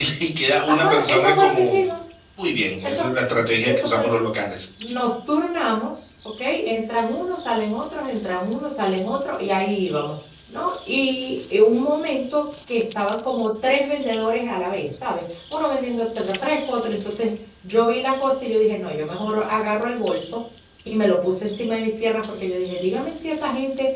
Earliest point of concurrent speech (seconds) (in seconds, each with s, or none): 0.7 s